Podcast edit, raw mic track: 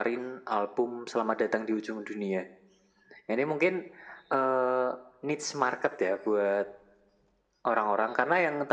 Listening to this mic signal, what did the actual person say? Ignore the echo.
none

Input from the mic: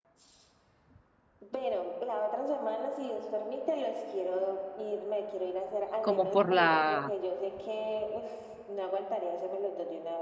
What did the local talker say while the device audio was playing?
Como por la,

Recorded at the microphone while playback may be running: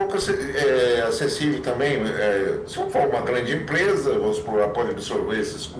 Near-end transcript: none

